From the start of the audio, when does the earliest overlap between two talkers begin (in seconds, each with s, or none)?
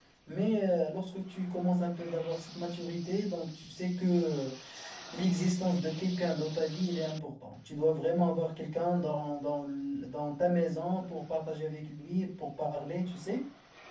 none